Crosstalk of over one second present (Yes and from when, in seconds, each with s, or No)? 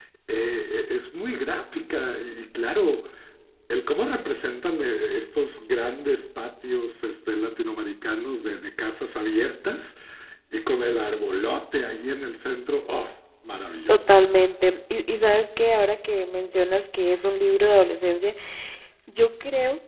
No